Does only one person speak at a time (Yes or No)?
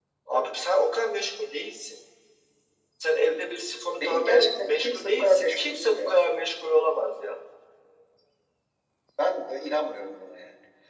No